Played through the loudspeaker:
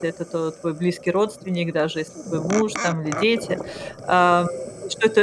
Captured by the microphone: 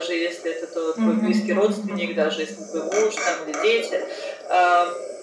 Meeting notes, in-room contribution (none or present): present